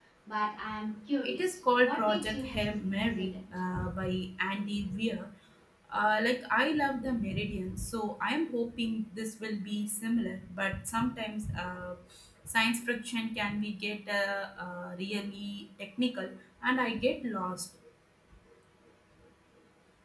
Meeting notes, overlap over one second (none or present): present